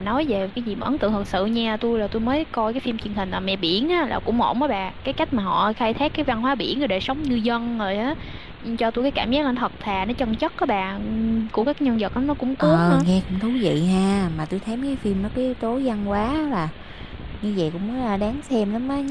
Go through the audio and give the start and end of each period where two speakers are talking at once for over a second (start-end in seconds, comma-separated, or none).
none